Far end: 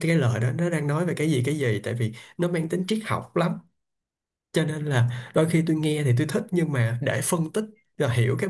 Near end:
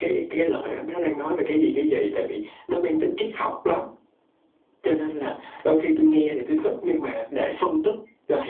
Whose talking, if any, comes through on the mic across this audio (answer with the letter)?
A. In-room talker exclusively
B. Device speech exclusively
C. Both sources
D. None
B